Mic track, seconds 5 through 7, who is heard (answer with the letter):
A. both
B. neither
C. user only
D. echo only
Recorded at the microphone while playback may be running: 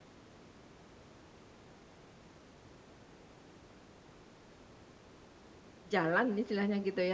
C